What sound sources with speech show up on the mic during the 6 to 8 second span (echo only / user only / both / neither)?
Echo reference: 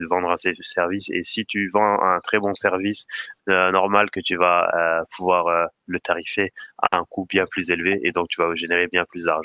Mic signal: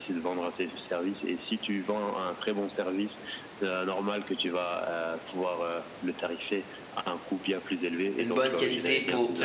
echo only